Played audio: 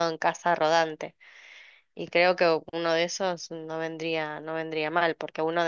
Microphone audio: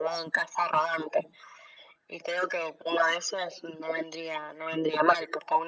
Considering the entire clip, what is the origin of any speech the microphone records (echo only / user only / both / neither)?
echo only